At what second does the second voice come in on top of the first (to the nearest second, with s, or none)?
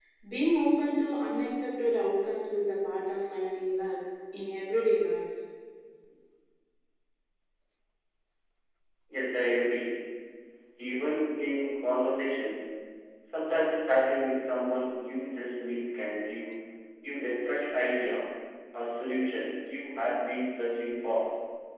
none